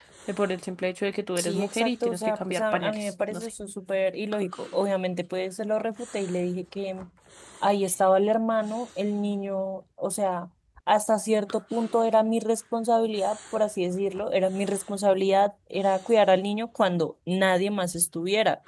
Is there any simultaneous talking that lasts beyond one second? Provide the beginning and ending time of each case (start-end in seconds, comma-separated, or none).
1.4-3.5